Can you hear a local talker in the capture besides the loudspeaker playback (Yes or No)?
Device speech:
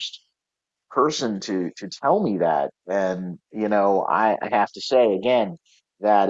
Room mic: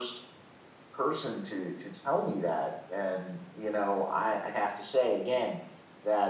No